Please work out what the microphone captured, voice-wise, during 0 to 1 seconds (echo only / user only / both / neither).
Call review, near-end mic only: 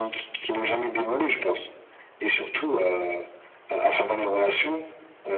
echo only